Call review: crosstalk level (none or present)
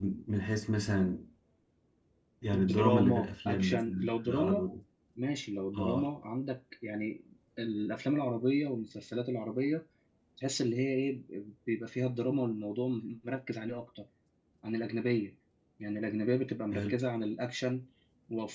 present